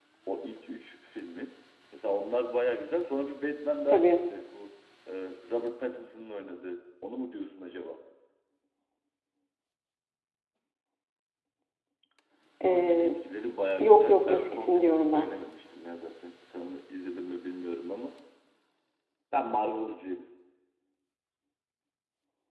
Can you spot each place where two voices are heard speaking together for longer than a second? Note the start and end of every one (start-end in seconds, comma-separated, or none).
13.8-15.3